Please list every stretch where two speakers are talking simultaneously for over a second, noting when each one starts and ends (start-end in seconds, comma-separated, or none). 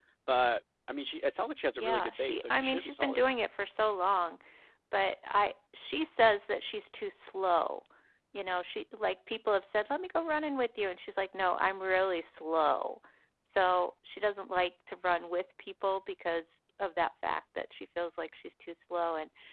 1.8-3.2